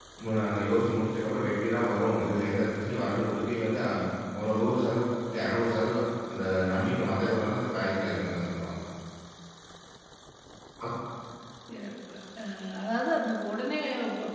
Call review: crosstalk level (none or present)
none